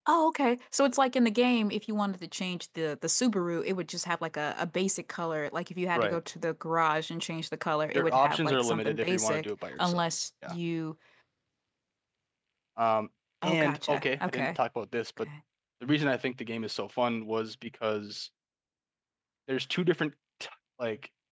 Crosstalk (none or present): present